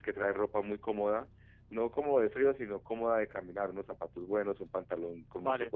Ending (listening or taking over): listening